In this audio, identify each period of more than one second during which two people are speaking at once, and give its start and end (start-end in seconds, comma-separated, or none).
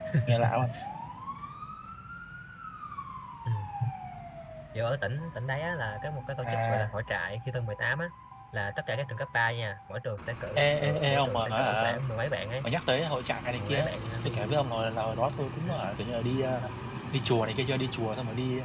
10.6-11.9